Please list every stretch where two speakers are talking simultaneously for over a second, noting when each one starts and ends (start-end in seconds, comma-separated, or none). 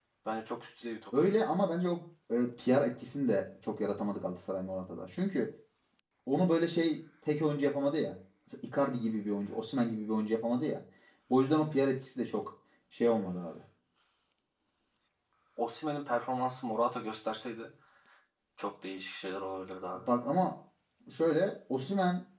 none